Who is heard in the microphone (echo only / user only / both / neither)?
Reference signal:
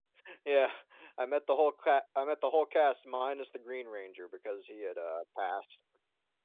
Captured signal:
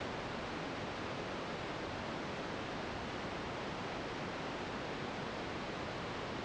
neither